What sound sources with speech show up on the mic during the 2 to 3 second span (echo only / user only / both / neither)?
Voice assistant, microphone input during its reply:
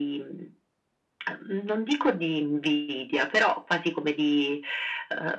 echo only